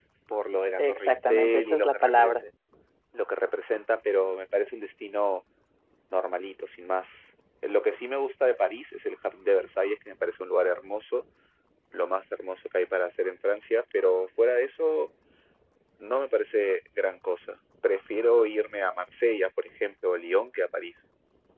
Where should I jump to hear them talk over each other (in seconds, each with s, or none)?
0.8 s